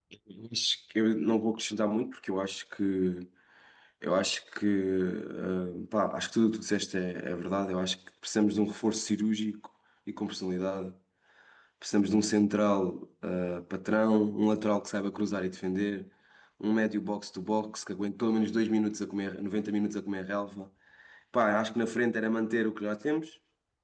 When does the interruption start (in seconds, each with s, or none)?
none